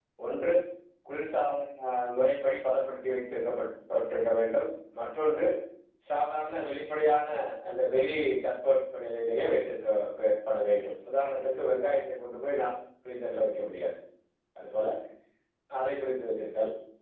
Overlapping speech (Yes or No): No